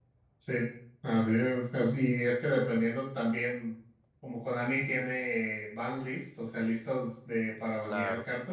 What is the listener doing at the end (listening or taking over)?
listening